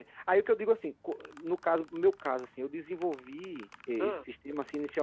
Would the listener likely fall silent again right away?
Yes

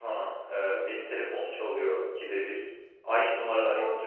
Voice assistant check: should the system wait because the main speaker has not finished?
Yes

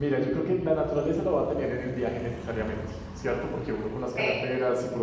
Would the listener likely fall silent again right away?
Yes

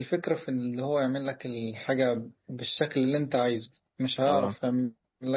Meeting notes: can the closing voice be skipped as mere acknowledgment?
Yes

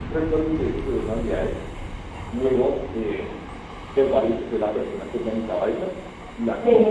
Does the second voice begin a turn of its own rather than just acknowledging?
No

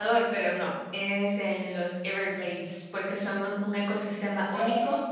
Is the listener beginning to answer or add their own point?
No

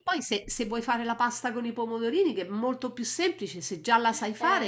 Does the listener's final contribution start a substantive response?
Yes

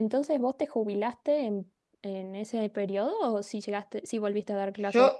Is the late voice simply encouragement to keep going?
No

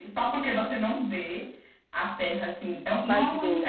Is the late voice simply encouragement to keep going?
Yes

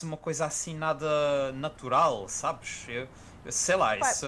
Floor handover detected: No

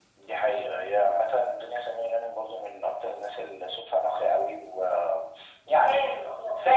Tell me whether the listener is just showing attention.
No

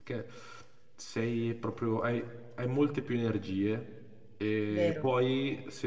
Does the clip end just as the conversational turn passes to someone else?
No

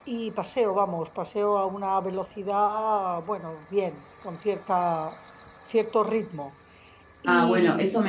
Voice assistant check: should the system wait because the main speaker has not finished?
No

